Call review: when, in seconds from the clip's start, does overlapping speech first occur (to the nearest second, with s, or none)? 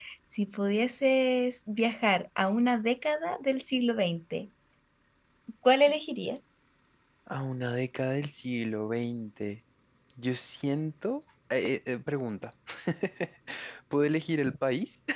none